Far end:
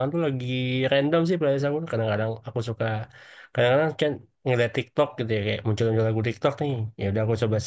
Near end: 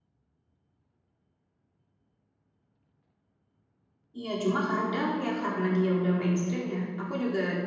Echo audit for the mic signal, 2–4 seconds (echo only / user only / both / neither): neither